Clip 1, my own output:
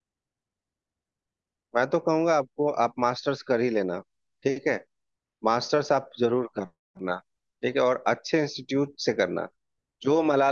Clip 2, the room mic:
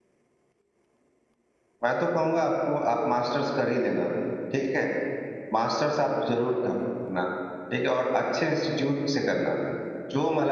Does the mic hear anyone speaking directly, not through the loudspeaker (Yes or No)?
No